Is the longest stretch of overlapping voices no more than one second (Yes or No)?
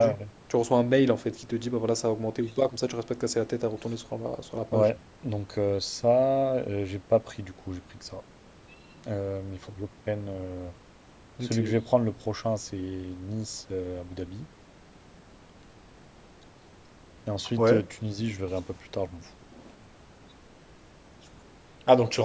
Yes